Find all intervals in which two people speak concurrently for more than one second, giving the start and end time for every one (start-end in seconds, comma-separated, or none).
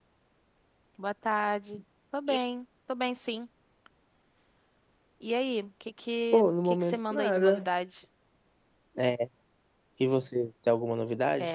6.3-7.7